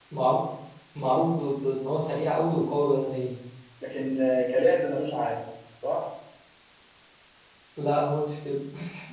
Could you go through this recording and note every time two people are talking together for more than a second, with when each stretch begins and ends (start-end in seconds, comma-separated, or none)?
none